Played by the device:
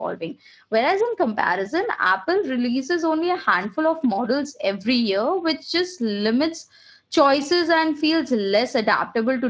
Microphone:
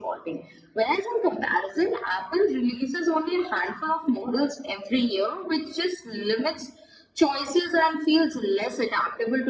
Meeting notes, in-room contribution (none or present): none